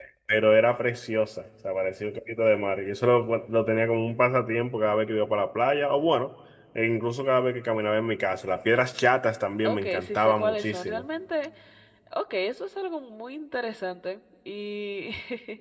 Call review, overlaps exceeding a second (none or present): present